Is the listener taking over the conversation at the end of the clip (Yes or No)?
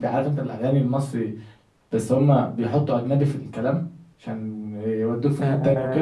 Yes